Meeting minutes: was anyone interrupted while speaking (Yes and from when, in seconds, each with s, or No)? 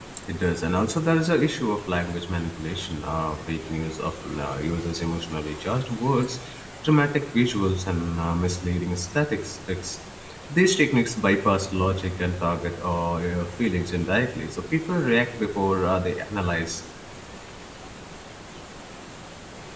No